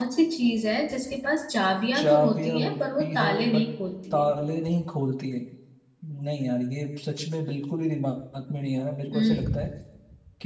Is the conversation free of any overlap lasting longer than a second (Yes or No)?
No